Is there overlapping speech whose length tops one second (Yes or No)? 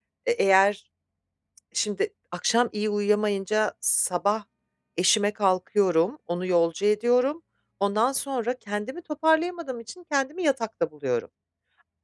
No